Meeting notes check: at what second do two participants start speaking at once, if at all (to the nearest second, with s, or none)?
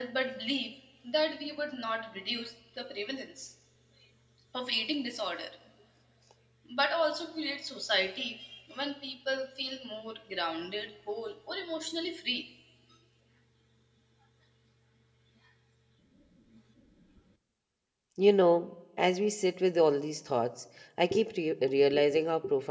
none